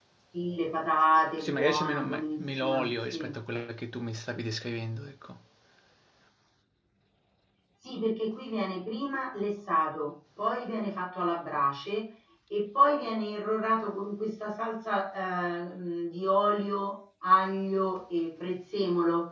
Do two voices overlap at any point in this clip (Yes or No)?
Yes